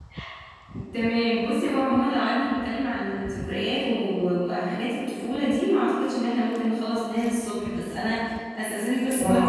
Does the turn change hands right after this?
No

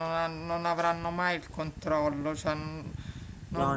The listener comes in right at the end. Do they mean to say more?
No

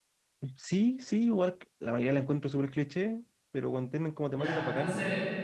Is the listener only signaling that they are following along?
No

